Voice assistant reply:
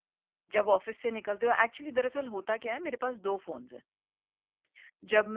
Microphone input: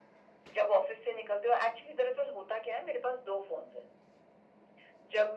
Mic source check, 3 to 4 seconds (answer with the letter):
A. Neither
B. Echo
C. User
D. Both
B